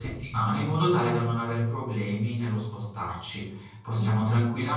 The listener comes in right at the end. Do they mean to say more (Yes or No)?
No